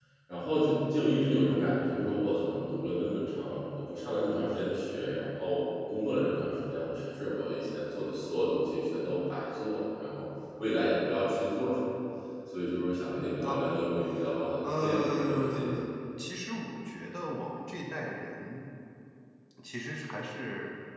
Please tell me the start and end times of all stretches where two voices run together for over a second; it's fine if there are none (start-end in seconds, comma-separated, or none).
14.6-15.8